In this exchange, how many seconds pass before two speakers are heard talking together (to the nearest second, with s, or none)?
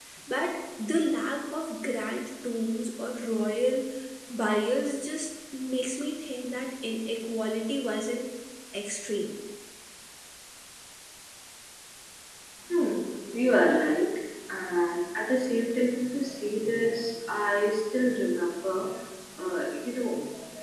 none